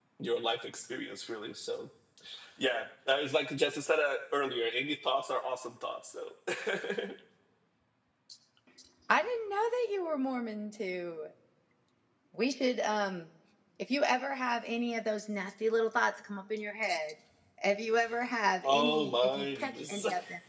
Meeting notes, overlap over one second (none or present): present